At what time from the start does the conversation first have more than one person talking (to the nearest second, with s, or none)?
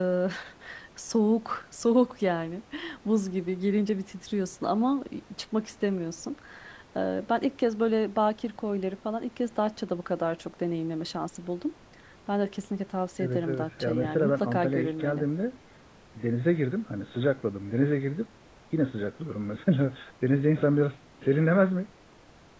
13 s